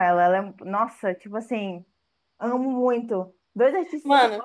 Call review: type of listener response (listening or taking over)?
listening